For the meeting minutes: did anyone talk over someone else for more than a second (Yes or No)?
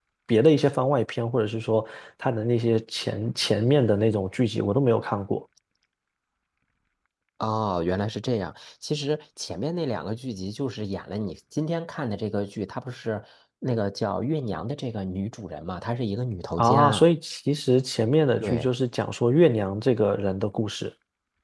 No